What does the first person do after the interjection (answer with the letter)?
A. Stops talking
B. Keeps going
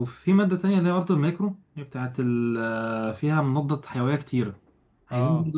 B